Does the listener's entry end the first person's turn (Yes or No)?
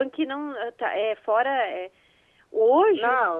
Yes